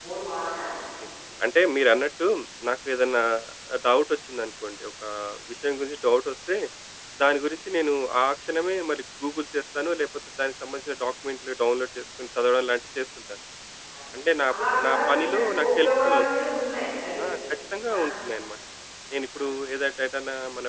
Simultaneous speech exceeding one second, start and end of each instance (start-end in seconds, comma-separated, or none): 14.9-16.2